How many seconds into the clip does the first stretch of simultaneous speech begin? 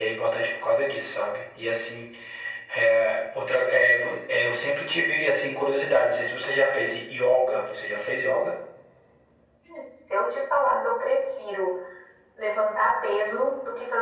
none

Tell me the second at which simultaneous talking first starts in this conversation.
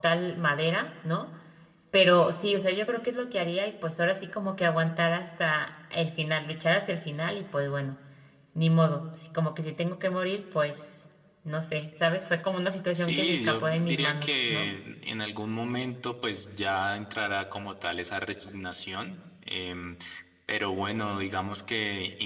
12.9 s

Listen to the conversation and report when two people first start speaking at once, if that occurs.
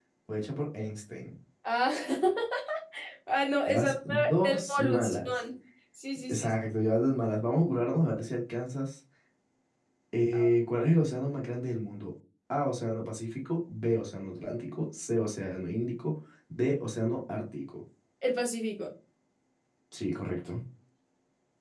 3.7 s

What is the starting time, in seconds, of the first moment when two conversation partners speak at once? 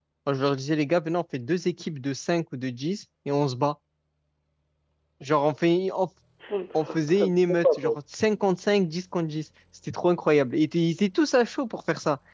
6.7 s

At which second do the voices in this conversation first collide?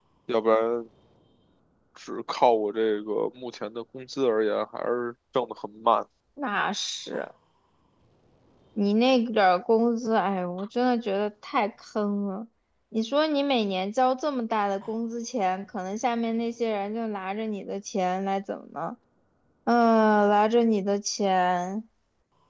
none

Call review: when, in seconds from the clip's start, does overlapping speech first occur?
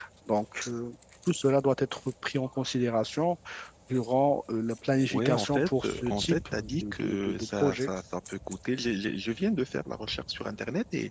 5.1 s

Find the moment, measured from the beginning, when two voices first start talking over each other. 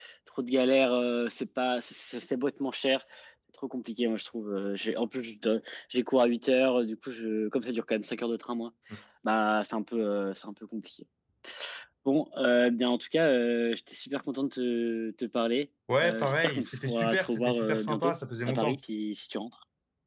15.9 s

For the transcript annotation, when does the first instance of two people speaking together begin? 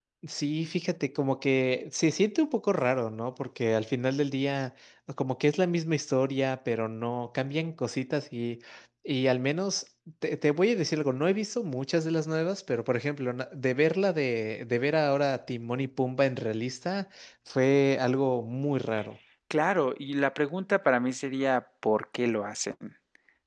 none

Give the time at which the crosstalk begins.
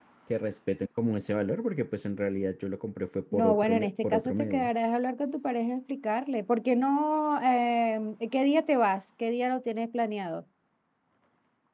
3.3 s

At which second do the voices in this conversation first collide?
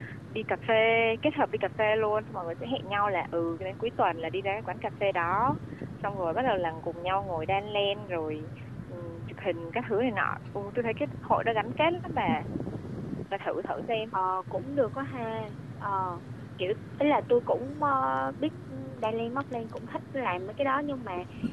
none

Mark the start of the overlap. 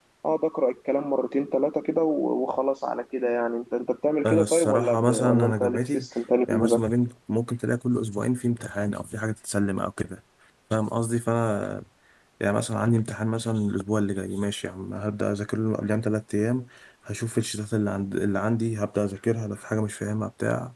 4.3 s

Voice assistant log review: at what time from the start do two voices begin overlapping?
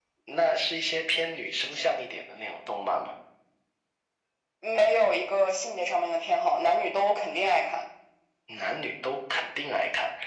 none

